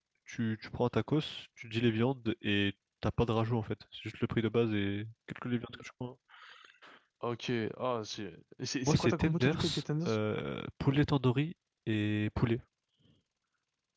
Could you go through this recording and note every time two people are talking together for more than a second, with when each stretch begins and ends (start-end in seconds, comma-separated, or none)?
8.8-10.2